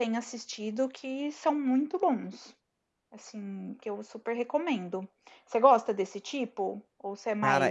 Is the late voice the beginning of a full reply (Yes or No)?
Yes